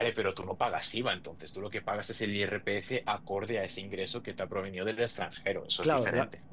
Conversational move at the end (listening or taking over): taking over